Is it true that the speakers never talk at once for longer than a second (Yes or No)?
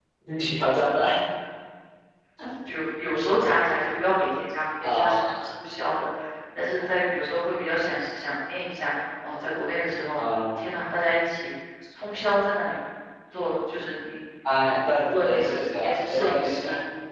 No